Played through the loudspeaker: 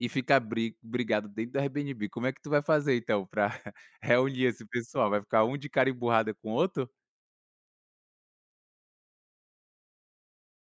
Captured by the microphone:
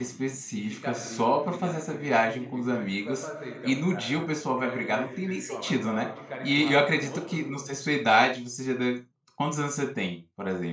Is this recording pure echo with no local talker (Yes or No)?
No